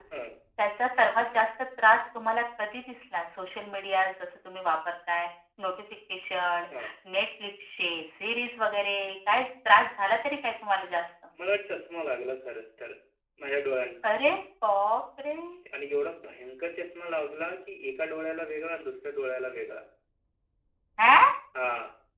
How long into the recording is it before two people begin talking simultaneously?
none

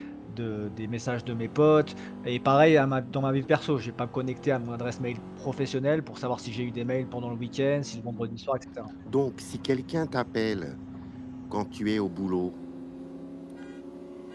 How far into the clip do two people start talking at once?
none

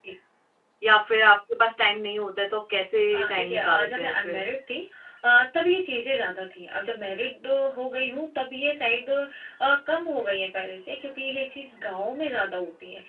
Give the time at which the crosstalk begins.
3 s

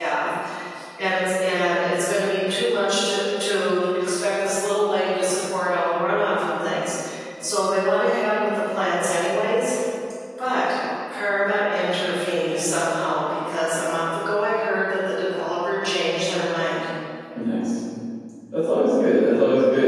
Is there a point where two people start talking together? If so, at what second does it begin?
none

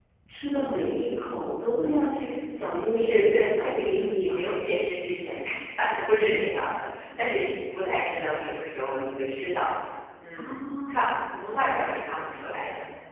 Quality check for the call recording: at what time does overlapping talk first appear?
3 s

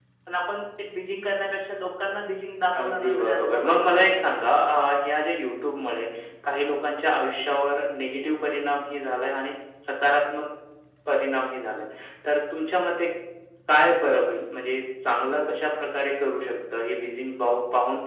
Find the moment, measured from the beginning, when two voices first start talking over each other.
3 s

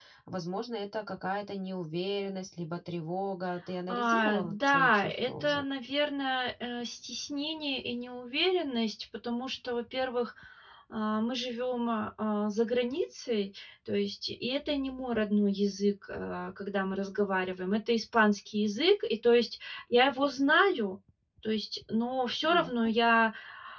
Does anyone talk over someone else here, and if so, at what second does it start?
4 s

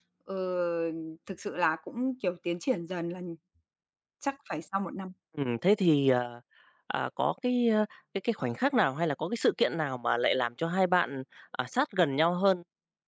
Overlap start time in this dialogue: none

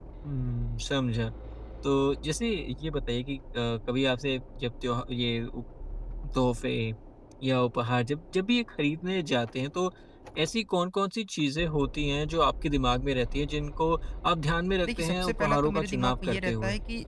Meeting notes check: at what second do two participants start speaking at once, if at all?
15 s

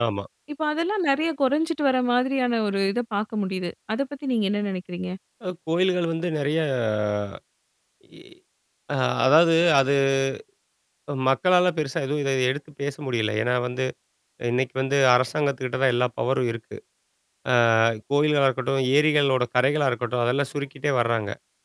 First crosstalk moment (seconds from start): none

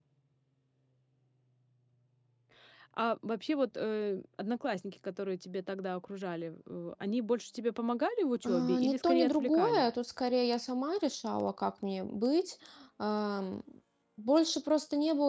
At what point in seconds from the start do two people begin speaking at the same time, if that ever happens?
8 s

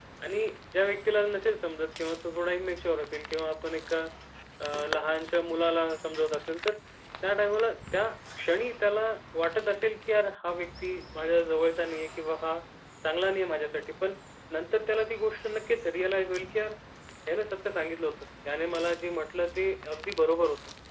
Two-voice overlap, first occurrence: none

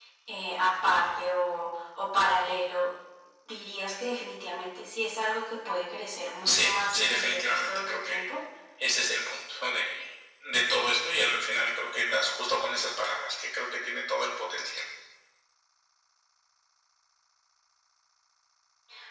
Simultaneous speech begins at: 6 s

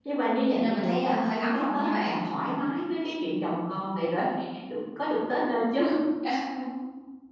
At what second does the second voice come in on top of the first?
1 s

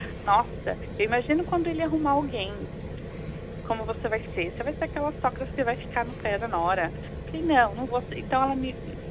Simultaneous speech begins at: none

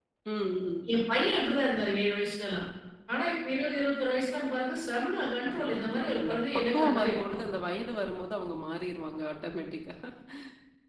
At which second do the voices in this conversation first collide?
5 s

